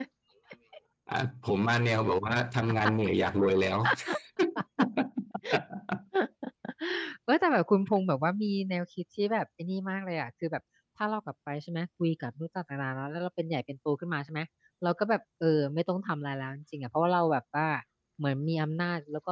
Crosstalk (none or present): none